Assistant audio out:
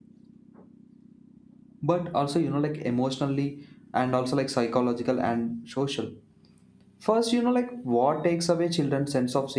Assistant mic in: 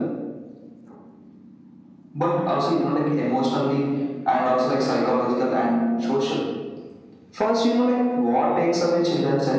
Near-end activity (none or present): none